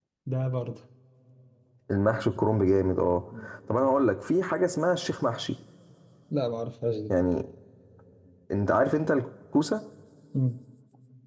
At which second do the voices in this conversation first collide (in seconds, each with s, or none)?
none